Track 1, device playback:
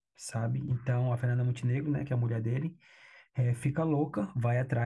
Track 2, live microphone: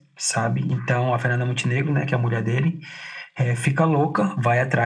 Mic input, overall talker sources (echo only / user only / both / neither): echo only